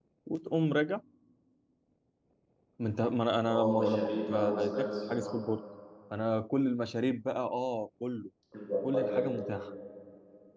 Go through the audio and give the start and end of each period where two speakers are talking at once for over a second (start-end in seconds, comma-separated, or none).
3.5-5.3